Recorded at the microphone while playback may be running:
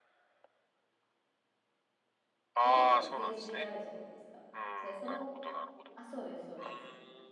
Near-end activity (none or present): present